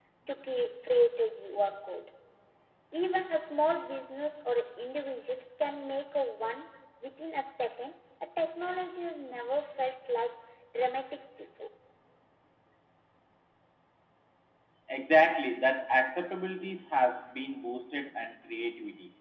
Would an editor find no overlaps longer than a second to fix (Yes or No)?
Yes